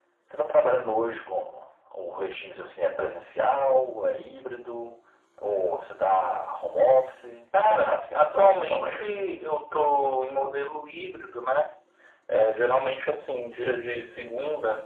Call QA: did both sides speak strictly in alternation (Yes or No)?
No